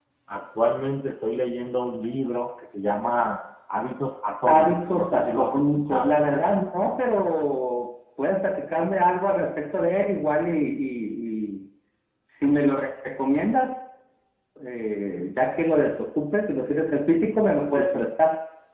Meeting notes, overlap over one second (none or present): present